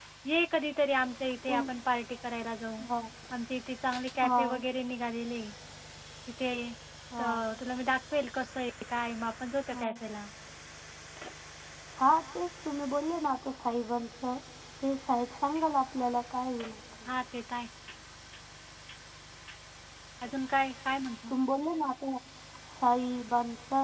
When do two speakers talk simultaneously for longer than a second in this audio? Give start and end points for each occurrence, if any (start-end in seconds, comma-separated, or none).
none